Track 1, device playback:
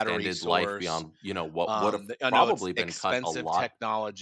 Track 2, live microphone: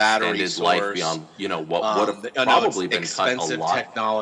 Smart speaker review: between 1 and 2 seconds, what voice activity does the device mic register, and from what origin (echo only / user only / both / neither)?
echo only